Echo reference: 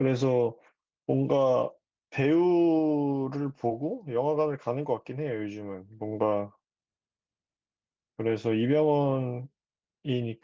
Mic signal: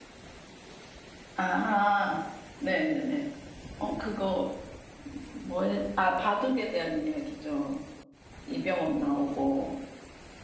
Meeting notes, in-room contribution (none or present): present